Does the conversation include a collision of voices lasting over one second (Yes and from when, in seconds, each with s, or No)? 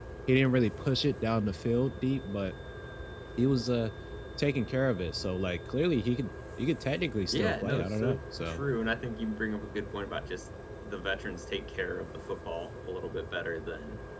Yes, from 7.3 s